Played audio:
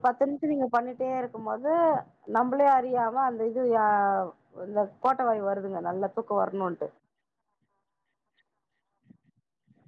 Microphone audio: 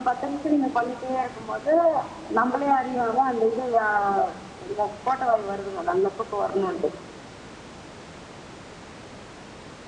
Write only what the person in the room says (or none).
none